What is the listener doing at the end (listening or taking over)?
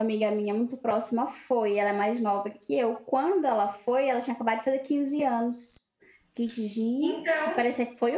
listening